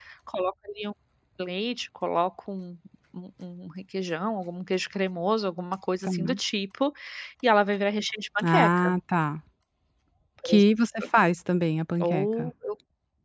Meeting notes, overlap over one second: none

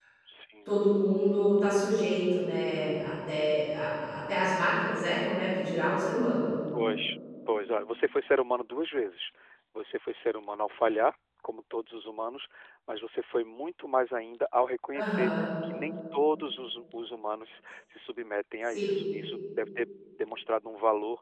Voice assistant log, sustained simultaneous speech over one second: none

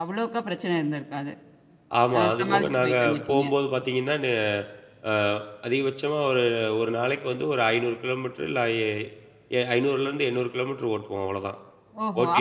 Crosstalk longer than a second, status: present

